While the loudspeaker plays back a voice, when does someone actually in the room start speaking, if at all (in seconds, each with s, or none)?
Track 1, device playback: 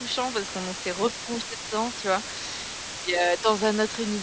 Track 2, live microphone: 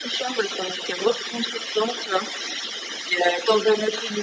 none